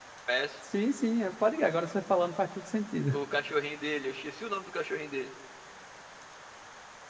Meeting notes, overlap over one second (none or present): none